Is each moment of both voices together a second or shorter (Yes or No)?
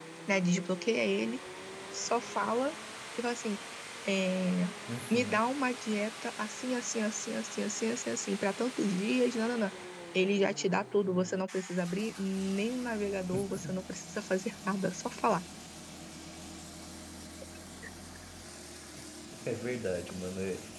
Yes